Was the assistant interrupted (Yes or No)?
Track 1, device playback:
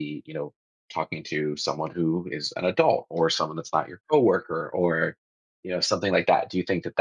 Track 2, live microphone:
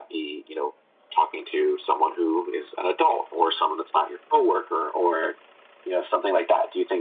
No